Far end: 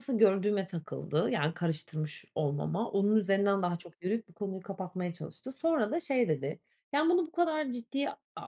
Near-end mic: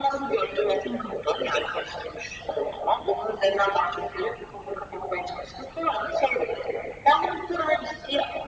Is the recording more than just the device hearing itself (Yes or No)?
Yes